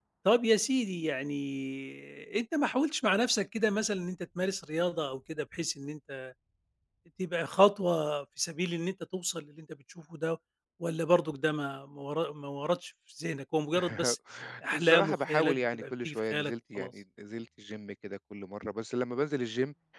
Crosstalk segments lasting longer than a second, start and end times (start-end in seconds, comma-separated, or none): 14.7-16.9